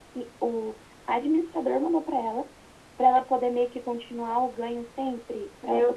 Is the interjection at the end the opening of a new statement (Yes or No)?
Yes